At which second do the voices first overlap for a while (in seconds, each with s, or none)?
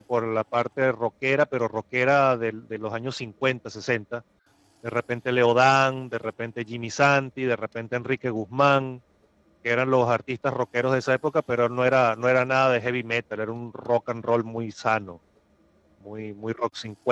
none